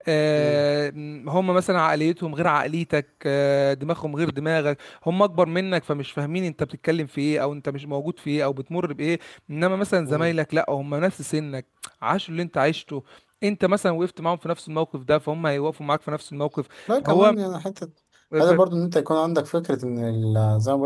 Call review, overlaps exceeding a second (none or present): none